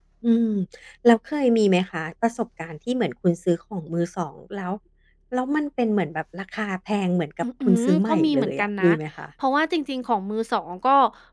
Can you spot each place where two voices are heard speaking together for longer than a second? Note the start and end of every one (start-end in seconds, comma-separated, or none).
7.7-8.9